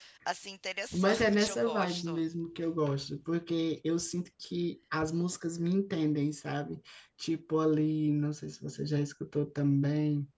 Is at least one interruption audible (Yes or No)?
Yes